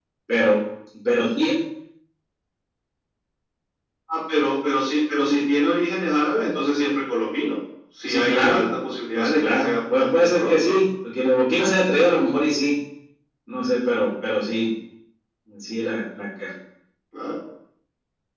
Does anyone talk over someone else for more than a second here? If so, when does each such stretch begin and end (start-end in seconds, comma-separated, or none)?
9.2-10.6